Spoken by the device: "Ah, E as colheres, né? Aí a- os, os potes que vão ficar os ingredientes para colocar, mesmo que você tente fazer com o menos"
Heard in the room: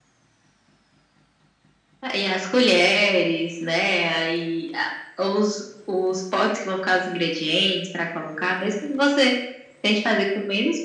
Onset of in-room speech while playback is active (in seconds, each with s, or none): none